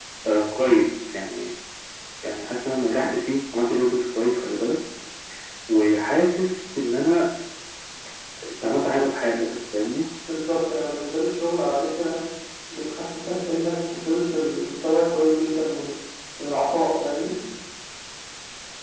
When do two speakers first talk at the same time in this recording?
none

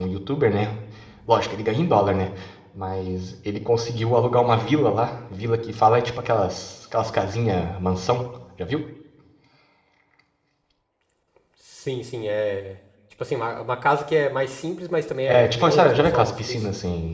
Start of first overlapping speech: 15.3 s

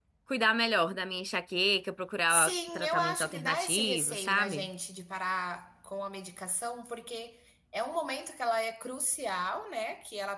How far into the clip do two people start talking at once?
2.3 s

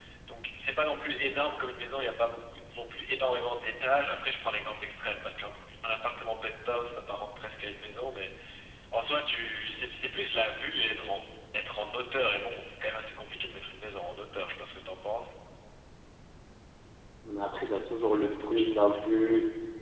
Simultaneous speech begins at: none

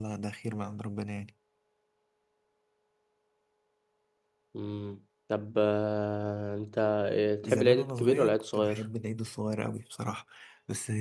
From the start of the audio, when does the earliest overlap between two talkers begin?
7.4 s

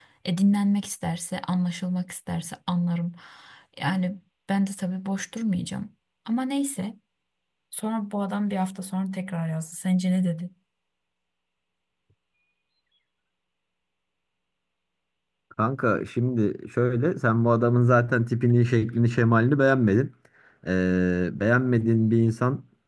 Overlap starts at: none

